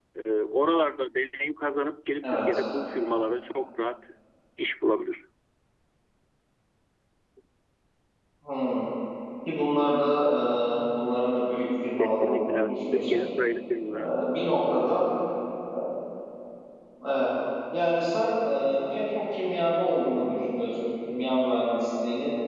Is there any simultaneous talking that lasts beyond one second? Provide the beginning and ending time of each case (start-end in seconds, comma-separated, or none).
12.0-13.2